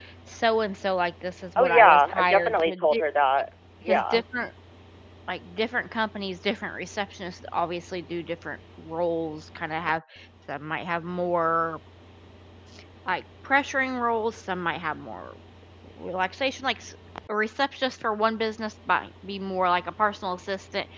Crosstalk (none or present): present